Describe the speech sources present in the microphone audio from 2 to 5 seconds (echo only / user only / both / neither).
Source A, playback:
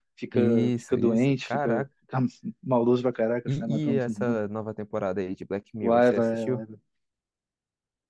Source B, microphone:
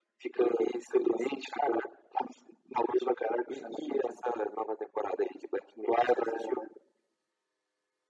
echo only